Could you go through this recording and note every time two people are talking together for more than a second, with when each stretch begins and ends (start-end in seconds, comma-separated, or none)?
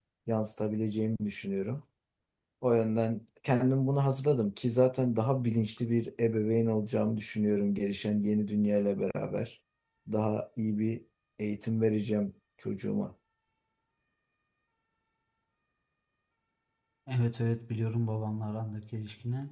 none